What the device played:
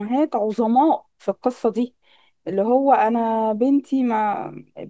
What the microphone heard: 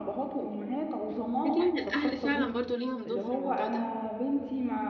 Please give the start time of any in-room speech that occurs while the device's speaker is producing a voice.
1.4 s

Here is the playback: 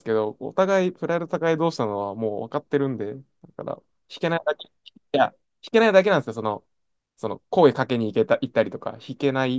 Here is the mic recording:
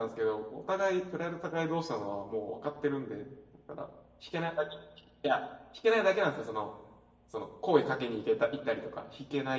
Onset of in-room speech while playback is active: none

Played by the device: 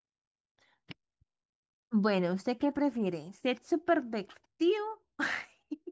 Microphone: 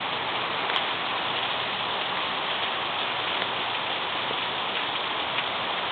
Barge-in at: none

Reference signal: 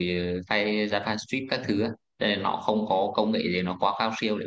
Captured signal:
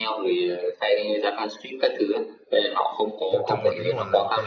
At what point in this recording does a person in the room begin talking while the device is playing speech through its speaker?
3.3 s

